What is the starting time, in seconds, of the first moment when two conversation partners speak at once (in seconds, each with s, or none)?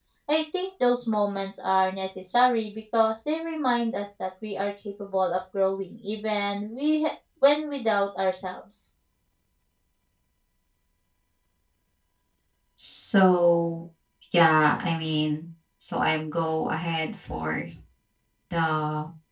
none